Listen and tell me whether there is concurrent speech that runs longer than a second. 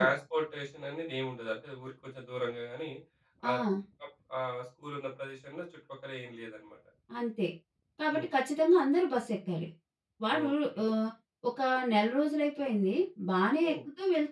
No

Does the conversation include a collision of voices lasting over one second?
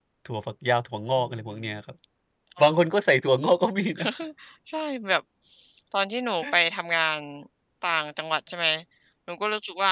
No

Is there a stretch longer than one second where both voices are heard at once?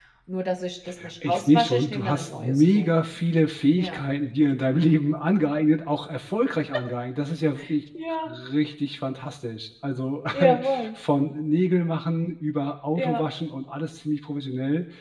Yes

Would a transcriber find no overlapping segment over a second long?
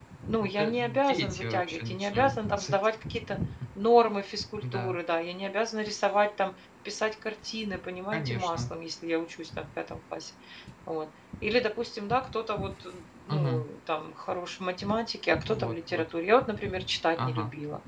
No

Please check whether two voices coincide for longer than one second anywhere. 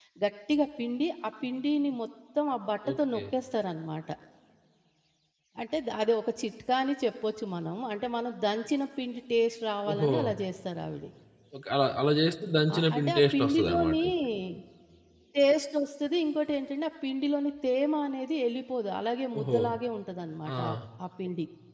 Yes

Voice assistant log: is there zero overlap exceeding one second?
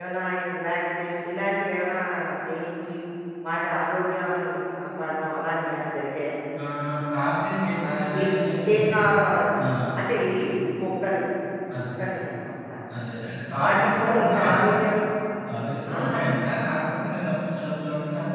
No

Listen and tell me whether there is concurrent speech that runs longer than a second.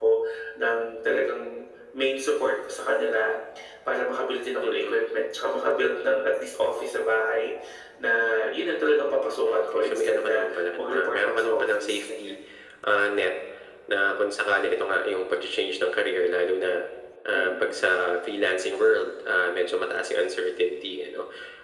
Yes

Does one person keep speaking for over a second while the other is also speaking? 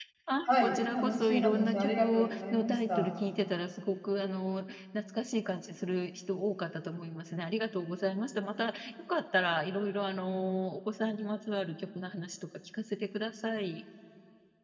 Yes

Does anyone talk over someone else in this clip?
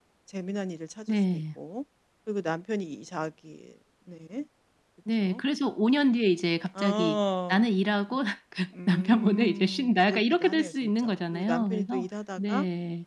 Yes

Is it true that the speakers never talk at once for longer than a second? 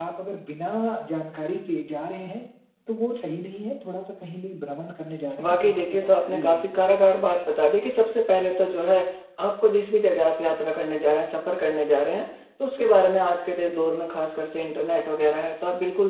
No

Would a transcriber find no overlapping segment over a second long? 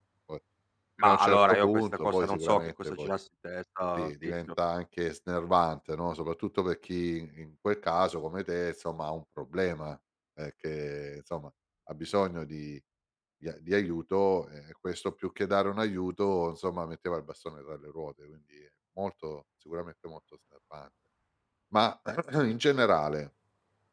No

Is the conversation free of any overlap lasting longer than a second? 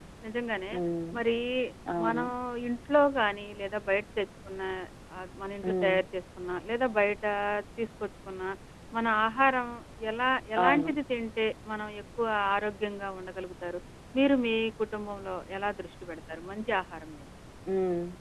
Yes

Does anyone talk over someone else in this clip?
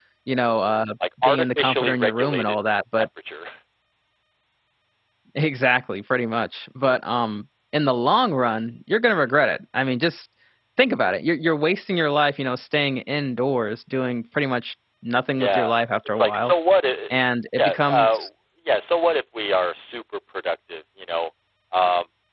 Yes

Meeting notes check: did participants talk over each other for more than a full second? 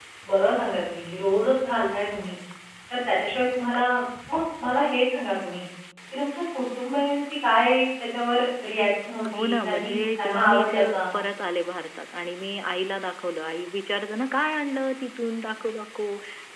Yes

